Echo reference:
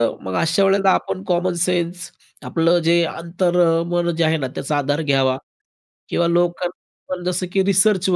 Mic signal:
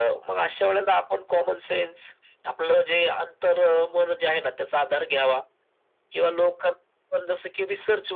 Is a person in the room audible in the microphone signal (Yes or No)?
No